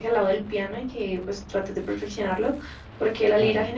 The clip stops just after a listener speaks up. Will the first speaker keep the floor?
Yes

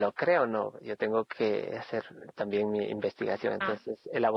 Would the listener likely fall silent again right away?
Yes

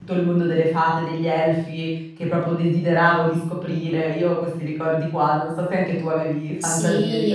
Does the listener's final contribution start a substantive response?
Yes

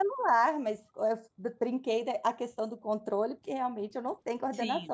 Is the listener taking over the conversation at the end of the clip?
Yes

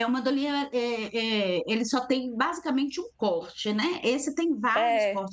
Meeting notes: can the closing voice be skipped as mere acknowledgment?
Yes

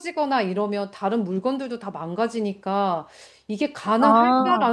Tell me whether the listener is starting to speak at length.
No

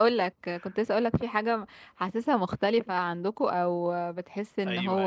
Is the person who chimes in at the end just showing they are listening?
No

